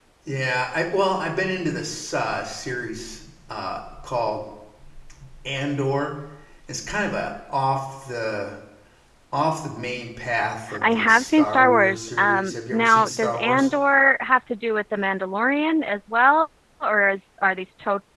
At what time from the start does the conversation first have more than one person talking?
11 s

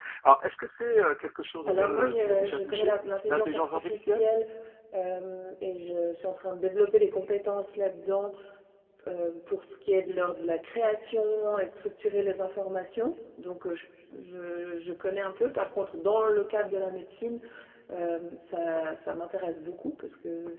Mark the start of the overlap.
2 s

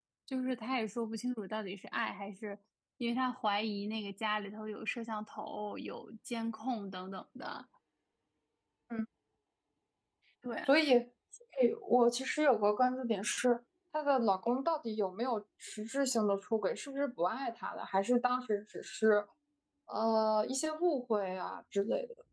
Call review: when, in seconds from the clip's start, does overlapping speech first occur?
none

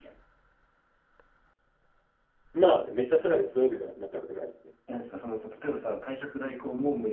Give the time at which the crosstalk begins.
none

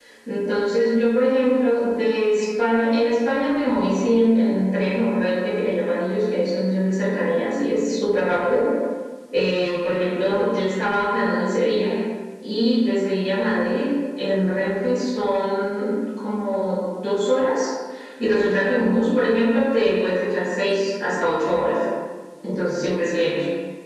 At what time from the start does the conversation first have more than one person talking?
none

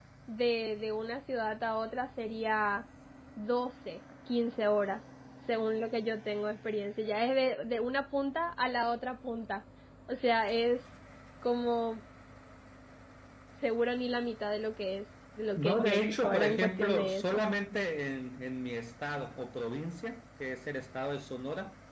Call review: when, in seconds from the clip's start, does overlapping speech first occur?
16 s

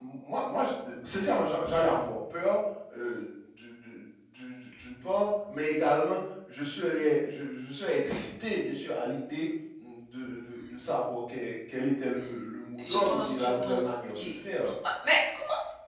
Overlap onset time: 13 s

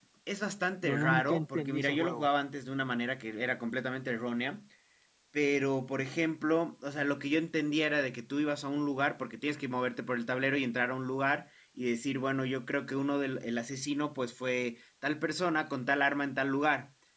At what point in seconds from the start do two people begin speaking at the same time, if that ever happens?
1 s

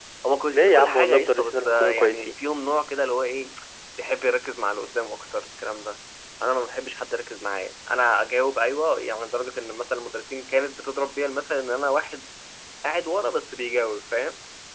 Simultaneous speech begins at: 1 s

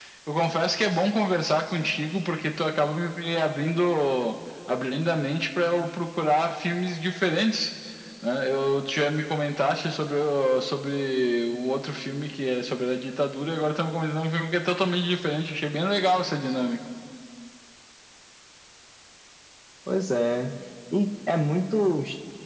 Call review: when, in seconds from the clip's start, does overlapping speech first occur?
none

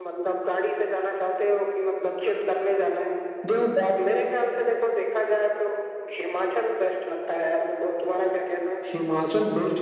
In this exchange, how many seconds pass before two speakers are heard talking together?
none

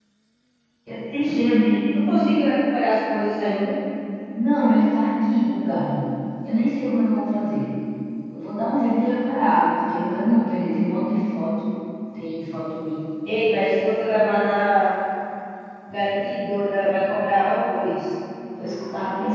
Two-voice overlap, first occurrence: none

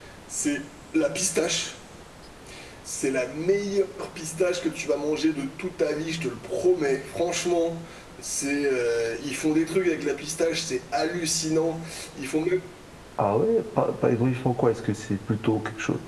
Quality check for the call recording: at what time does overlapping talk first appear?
none

